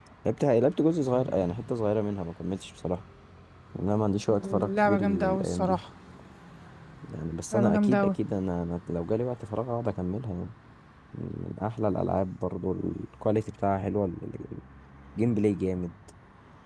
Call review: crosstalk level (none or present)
present